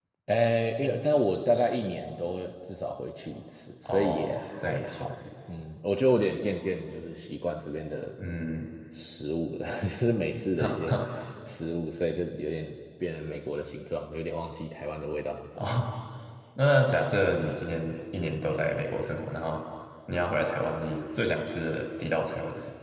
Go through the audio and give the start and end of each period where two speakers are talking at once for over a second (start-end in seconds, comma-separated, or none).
3.9-5.1